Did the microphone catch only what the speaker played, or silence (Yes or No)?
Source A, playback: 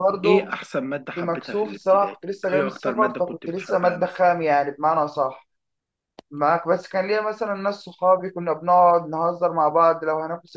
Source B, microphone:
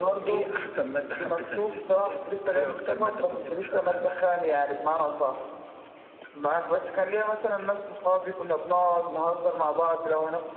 Yes